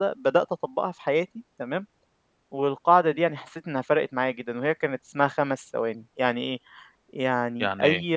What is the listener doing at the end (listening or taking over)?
listening